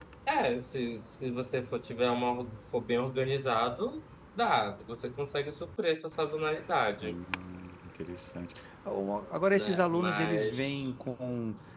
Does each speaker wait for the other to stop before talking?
No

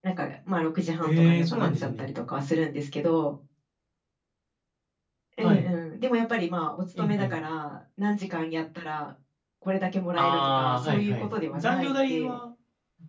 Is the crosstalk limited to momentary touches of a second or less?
No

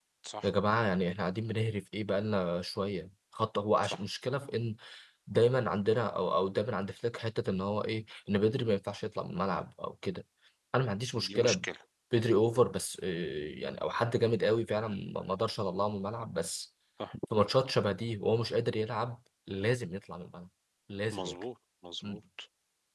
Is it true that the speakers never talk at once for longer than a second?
Yes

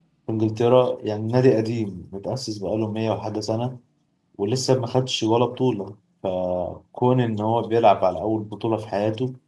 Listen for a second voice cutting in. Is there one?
No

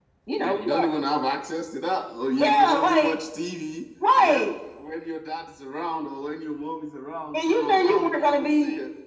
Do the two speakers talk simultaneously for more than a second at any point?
Yes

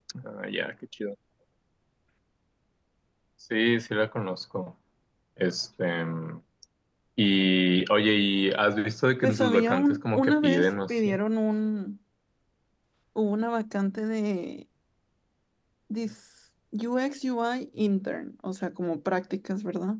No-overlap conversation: No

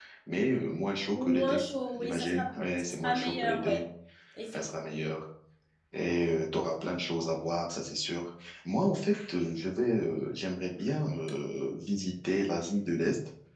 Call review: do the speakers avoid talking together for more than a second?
No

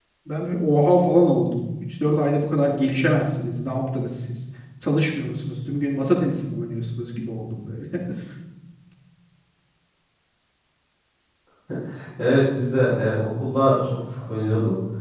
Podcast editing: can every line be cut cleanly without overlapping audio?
Yes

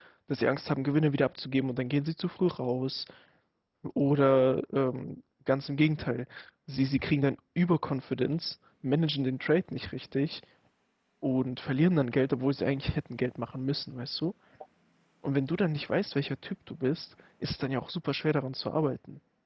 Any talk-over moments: No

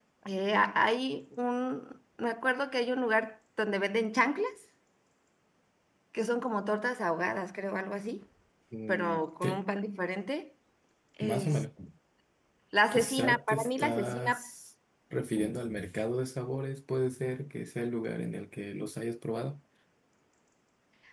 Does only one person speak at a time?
No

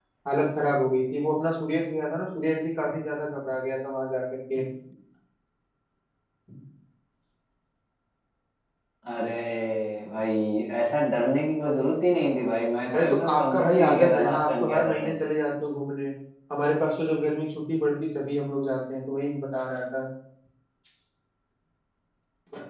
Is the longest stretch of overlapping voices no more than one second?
No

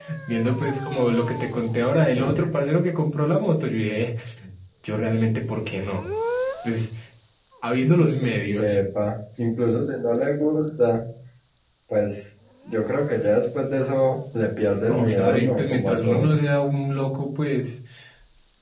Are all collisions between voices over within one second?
No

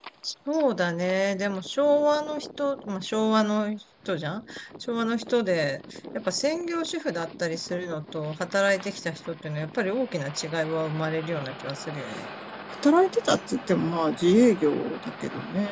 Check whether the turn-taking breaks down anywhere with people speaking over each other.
No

